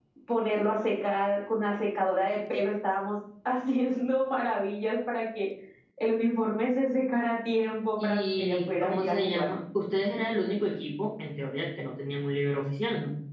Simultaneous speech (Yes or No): Yes